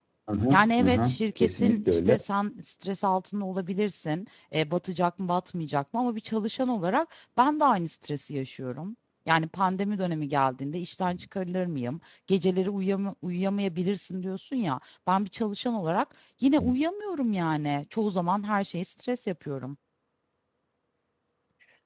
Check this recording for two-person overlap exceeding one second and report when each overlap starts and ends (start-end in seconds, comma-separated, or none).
0.5-2.2